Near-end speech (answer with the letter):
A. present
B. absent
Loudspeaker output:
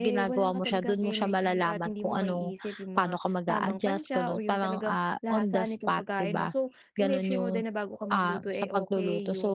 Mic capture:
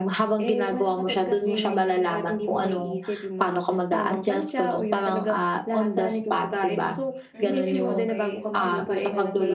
A